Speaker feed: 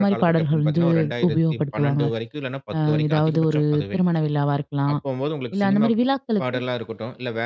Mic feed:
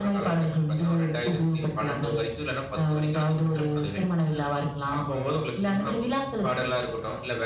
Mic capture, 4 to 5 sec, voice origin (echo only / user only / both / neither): echo only